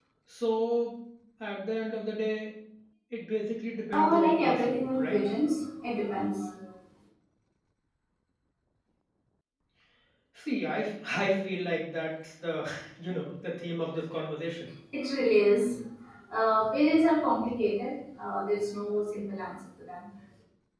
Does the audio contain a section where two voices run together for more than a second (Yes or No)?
Yes